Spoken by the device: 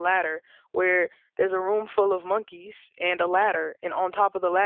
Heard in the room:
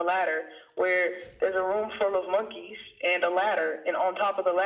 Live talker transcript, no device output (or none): none